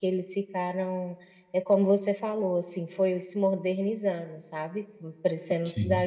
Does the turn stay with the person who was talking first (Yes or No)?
Yes